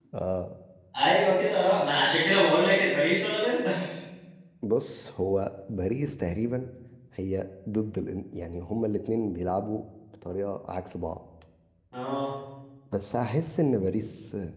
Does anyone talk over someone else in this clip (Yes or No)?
No